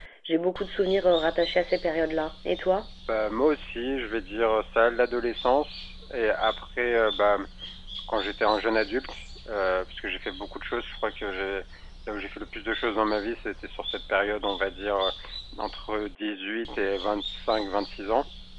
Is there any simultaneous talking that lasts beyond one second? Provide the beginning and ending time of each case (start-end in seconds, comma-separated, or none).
none